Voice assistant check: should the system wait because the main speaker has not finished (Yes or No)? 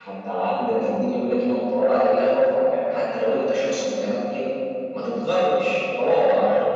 Yes